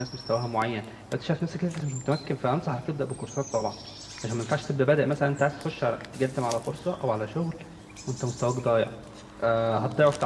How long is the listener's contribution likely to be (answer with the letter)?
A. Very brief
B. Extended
A